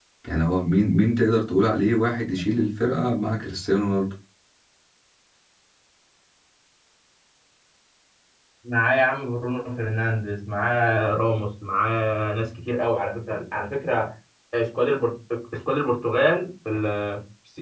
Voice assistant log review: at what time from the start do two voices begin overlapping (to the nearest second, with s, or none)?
none